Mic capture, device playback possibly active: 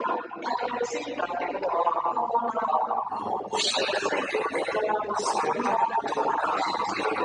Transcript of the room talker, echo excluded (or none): ええ、